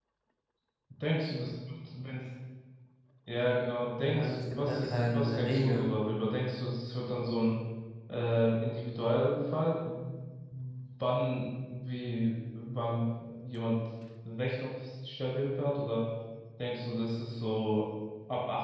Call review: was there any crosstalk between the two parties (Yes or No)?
Yes